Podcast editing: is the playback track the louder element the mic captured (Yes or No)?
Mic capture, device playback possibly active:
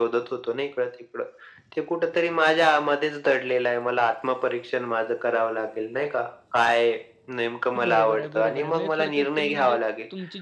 Yes